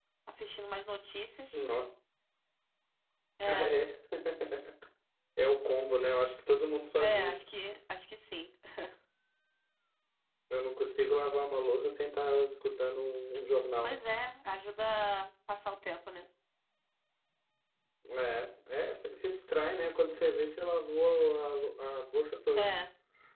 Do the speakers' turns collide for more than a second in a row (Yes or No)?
No